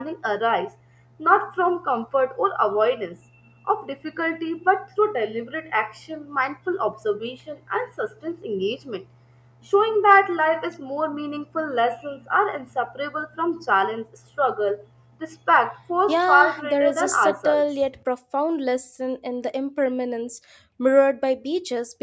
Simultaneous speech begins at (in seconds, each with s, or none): 16.1 s